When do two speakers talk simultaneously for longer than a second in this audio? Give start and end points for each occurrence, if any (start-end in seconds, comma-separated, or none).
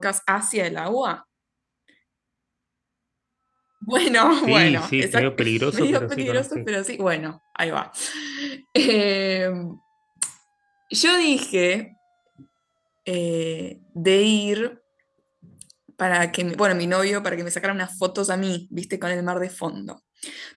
4.5-6.7